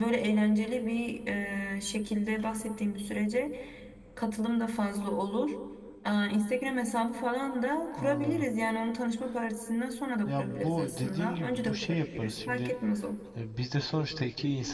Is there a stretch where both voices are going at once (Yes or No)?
Yes